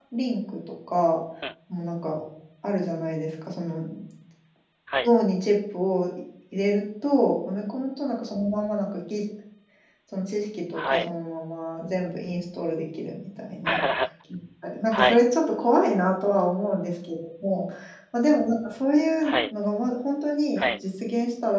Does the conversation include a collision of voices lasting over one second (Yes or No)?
No